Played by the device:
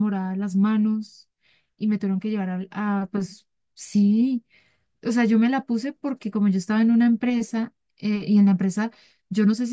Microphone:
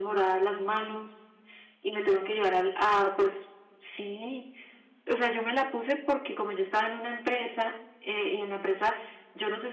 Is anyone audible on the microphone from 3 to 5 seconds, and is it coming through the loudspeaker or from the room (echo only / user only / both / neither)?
echo only